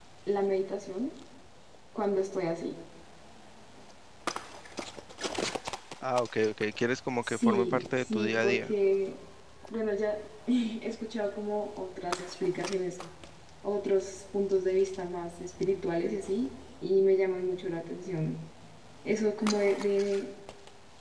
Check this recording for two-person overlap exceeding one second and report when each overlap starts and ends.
7.2-8.7

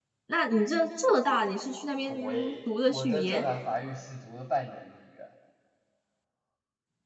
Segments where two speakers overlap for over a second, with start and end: 2.1-3.4

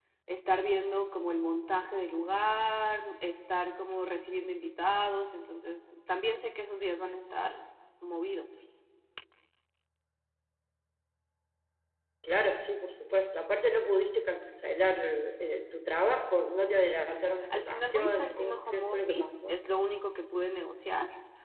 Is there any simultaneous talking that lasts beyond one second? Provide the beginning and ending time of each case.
17.5-19.6

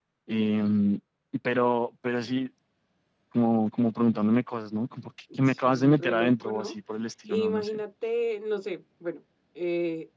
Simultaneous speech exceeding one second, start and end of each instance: 5.4-6.7

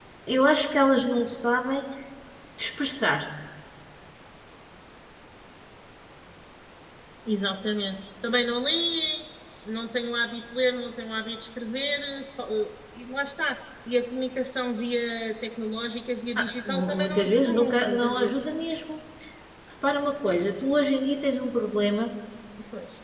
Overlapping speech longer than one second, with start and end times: 16.4-18.4

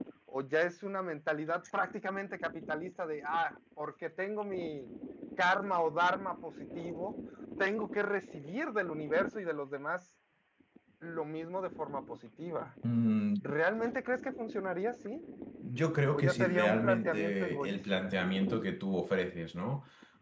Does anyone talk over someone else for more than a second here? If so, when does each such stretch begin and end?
16.1-18.1

